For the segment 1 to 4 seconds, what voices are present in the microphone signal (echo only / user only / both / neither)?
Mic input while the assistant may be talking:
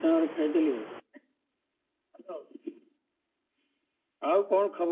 echo only